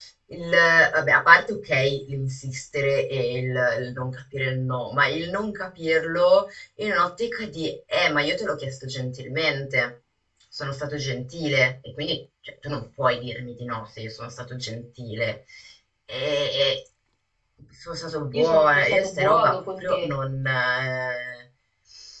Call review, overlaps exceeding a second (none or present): present